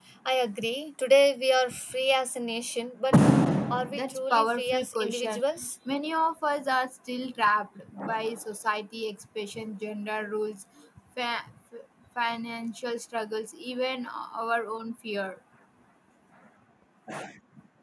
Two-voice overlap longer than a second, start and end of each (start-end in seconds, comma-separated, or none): 3.9-5.4